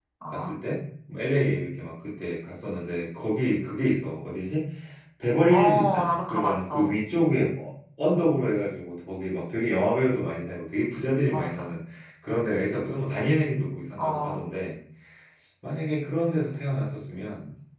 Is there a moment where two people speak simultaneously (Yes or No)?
Yes